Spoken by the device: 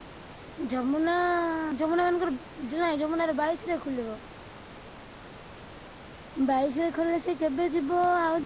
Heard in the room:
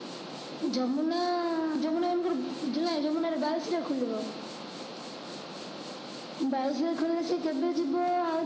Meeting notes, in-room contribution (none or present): none